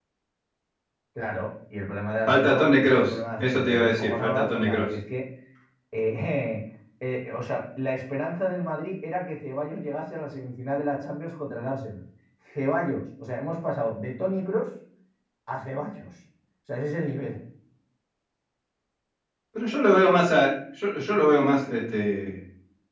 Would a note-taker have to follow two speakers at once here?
Yes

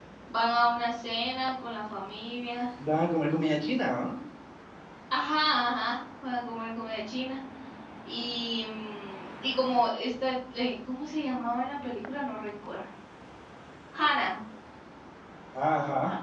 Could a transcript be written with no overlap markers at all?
Yes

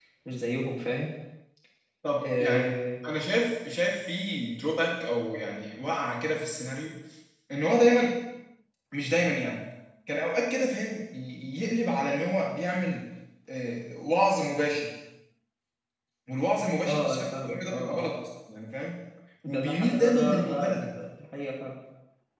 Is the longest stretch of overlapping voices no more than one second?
No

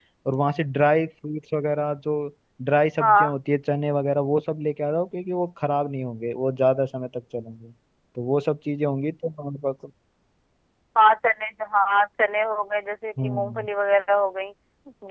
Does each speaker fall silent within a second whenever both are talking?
Yes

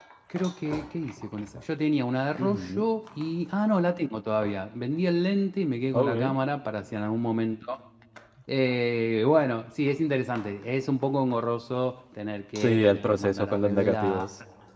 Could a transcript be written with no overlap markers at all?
No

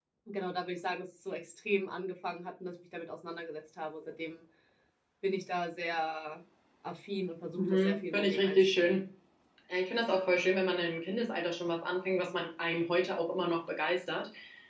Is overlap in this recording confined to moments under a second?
No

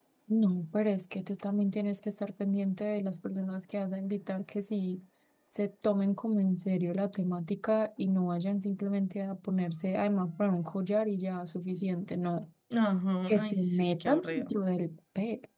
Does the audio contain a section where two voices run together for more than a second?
Yes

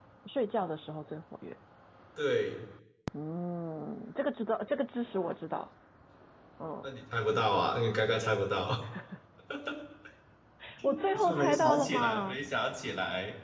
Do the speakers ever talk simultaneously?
Yes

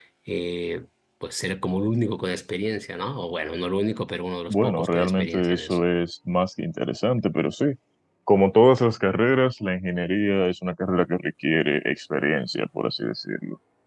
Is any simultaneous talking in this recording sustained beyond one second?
Yes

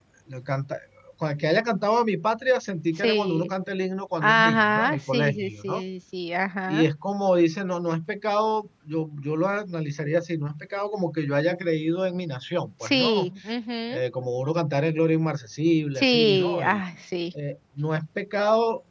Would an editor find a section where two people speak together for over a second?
Yes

